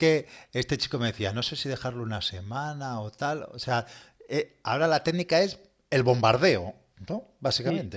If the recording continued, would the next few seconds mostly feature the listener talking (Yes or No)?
Yes